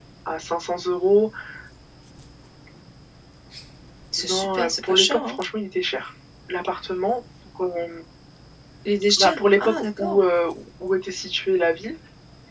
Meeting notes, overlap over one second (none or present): present